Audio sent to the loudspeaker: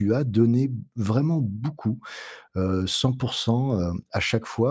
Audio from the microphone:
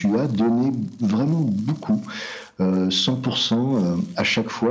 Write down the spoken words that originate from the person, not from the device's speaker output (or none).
none